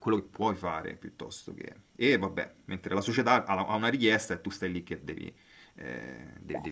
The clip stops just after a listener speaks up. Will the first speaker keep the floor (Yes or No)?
Yes